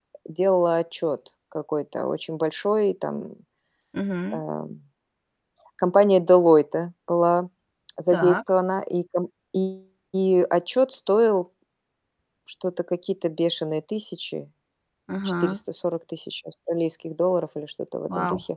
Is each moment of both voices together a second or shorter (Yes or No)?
Yes